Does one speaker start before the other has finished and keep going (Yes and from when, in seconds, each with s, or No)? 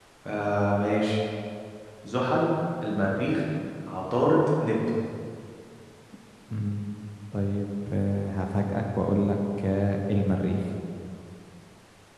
No